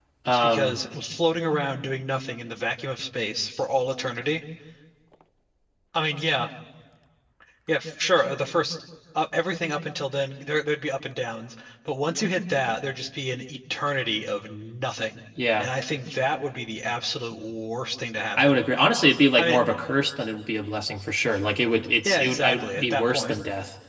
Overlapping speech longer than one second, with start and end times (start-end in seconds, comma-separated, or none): 22.0-23.4